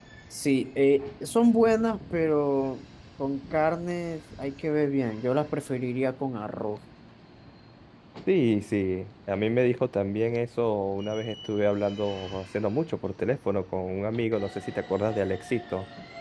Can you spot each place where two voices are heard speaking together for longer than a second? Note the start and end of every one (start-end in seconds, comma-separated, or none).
none